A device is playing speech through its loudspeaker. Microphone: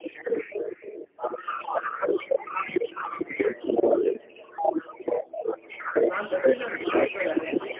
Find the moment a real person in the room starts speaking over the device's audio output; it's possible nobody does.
6.0 s

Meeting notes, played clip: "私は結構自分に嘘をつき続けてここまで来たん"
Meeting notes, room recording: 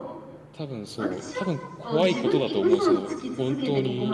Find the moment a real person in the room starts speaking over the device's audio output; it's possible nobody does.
0.5 s

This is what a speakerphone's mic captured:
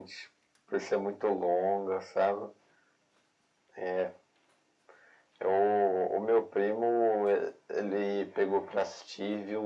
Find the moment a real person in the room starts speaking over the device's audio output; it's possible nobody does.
none

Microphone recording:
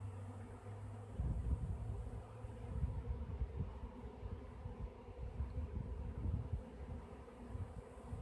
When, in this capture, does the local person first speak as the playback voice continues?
none

